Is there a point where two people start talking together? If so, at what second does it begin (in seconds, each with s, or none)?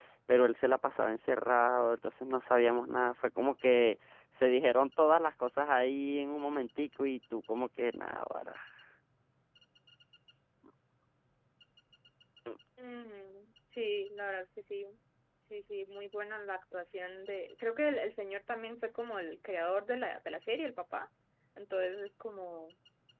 none